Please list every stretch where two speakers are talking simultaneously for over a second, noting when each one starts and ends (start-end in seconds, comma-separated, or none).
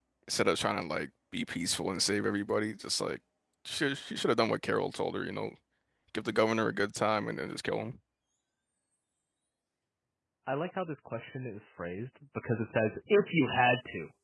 none